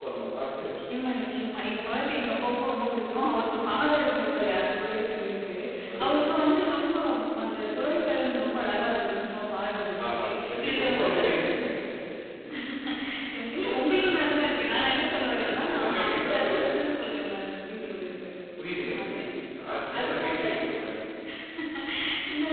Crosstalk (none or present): present